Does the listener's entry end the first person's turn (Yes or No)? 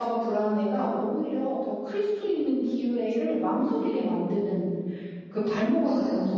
No